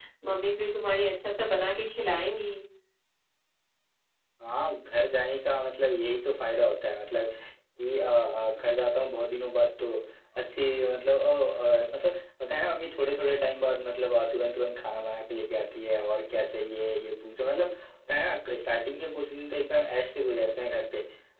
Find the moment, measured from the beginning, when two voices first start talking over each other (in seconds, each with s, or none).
none